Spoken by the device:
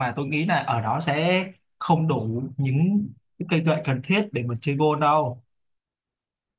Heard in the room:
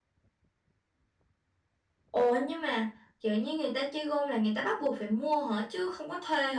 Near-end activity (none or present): present